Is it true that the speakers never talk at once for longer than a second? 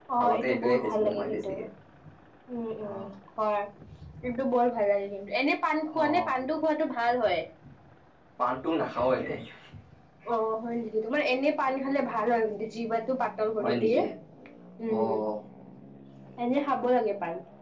No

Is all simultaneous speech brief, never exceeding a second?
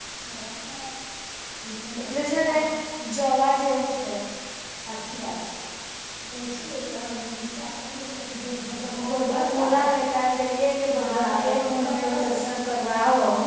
No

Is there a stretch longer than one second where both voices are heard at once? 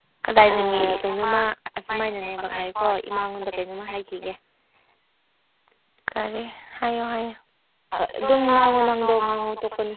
Yes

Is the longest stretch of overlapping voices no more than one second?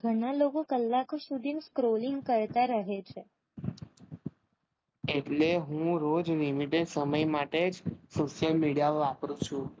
Yes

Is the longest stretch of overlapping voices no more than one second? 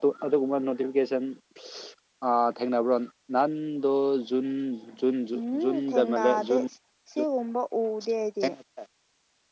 No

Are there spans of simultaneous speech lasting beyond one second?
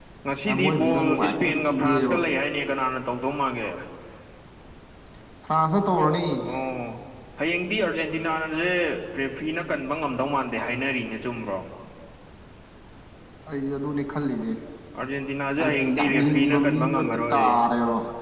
Yes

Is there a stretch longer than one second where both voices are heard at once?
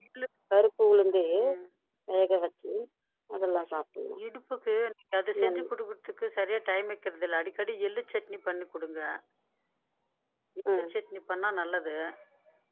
No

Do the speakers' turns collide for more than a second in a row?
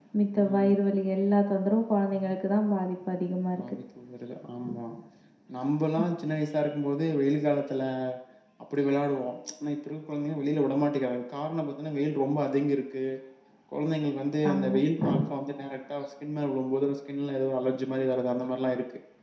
No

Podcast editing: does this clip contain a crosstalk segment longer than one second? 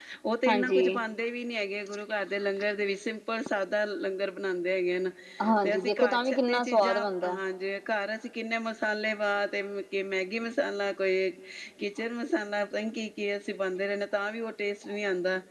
Yes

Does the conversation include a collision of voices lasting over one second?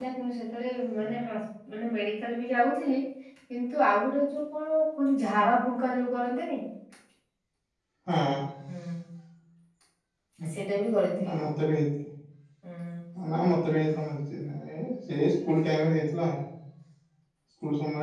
No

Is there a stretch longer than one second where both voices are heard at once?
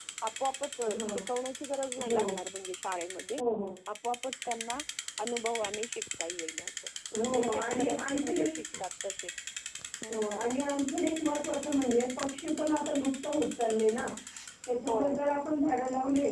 Yes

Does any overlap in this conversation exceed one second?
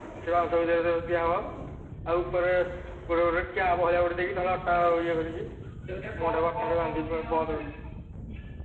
Yes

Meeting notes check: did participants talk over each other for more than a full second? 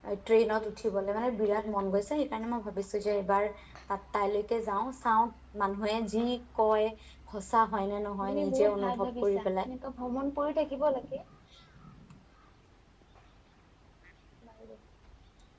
Yes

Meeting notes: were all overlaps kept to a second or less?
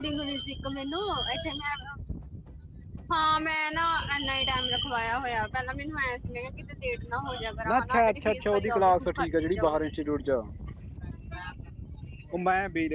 No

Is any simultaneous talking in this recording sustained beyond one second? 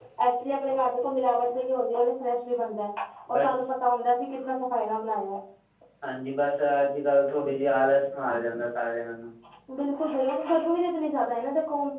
No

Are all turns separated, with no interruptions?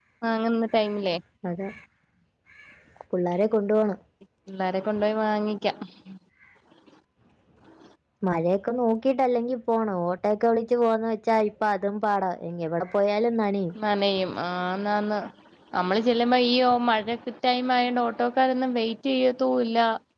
Yes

